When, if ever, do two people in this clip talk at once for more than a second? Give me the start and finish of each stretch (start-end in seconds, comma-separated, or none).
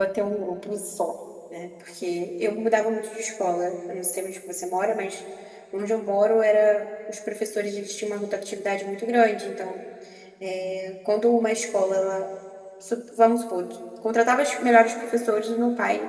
none